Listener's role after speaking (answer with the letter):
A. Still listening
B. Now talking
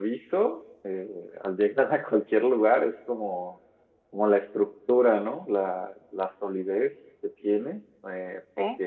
A